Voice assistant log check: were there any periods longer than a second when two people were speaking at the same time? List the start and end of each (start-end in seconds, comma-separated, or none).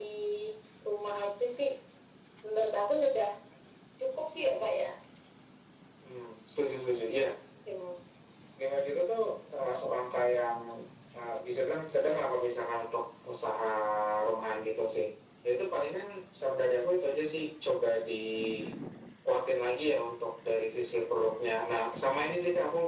none